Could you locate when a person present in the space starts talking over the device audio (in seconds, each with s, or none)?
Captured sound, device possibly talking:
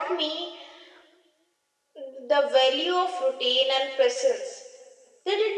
none